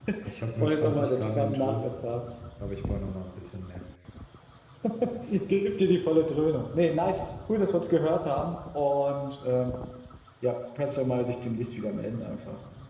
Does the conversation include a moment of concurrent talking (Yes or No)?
Yes